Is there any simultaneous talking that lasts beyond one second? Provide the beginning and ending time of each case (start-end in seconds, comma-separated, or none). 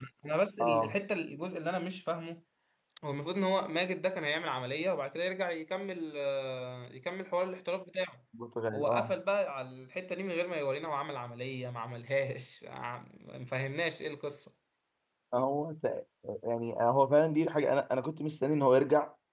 none